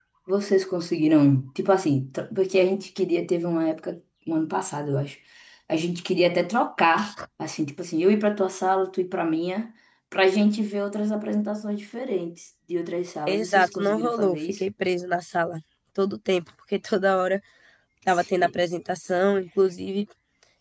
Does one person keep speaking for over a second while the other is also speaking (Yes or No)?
Yes